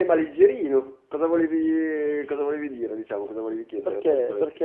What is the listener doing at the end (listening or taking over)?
taking over